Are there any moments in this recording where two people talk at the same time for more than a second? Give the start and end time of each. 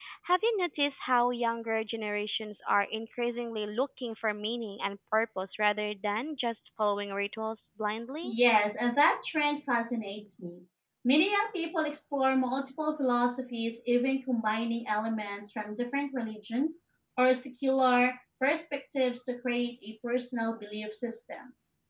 none

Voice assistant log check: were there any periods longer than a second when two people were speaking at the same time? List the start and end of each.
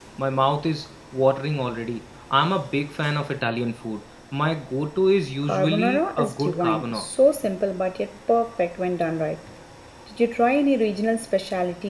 5.5-7.0

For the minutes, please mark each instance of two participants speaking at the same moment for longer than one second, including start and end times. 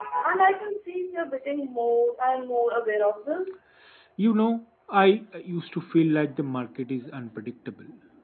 none

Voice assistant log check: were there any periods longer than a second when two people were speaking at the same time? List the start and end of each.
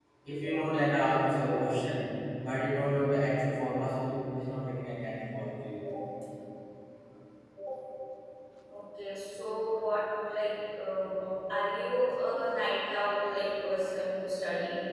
none

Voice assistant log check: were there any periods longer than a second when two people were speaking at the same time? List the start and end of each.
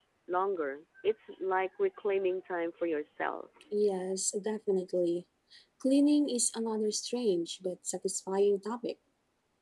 none

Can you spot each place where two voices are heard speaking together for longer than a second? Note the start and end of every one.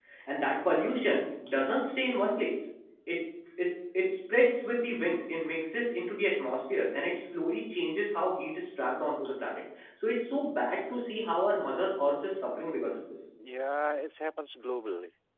none

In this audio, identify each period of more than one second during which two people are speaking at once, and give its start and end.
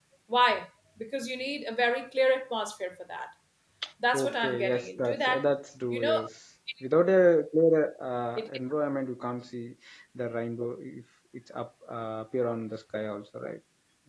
4.1-5.4

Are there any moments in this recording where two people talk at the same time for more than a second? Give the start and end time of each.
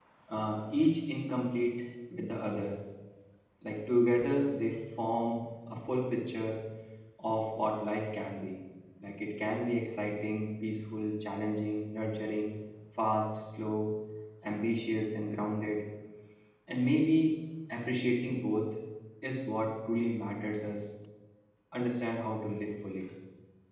none

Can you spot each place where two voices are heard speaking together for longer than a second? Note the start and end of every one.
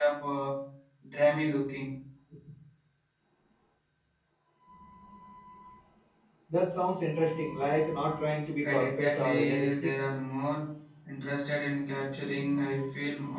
8.6-9.9

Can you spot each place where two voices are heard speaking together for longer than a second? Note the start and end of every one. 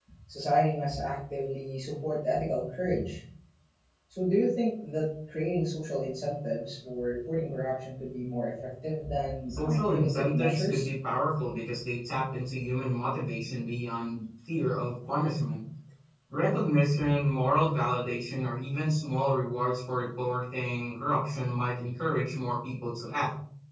9.5-10.9

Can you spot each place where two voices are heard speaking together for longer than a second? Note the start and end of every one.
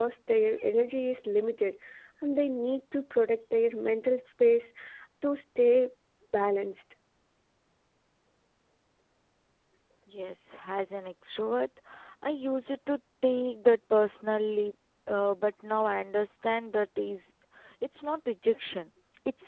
none

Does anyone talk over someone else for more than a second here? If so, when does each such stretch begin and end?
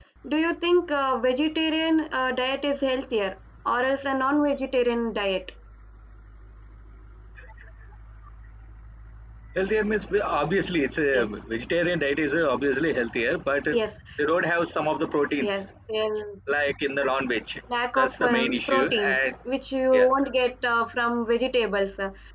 18.0-19.2

